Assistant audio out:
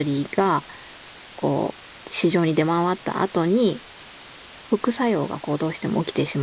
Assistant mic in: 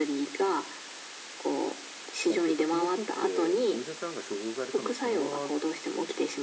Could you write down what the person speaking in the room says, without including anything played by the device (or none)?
だって普通の人ってお医者さんが処方されたのをそのまま